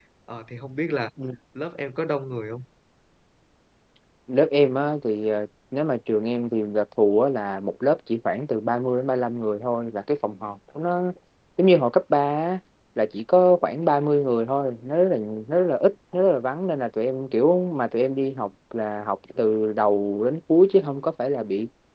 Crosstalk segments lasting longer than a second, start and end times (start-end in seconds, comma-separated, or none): none